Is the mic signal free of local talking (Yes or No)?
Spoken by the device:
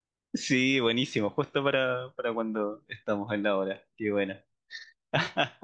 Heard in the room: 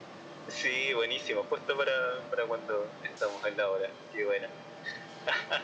Yes